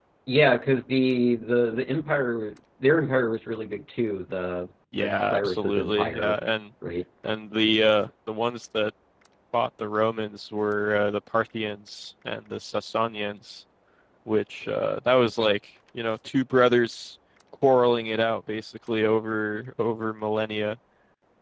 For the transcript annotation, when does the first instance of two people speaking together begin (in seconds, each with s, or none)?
4.9 s